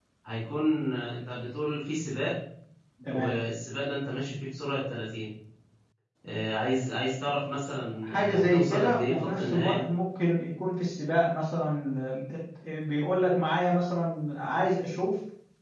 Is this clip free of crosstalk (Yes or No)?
No